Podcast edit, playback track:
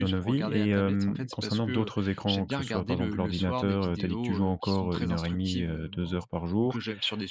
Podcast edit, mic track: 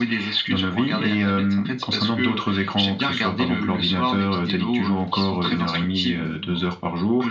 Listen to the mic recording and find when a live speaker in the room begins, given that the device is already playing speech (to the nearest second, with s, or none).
none